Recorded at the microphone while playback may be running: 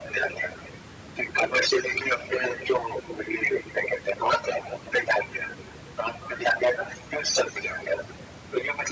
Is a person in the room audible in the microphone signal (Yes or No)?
No